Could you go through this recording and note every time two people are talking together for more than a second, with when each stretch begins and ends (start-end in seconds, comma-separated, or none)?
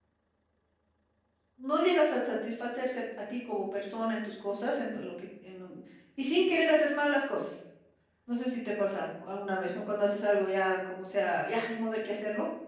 none